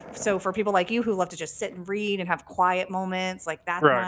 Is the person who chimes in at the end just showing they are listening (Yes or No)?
Yes